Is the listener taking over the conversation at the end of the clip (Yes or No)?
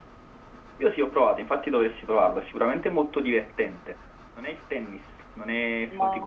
No